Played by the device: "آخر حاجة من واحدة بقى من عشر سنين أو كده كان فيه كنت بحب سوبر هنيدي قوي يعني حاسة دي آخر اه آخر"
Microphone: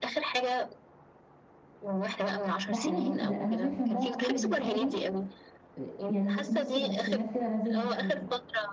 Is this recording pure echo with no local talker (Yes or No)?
No